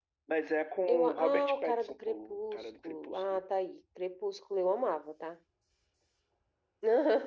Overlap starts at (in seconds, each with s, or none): 0.9 s